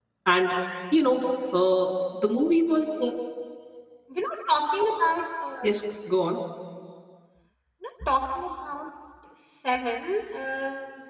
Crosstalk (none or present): none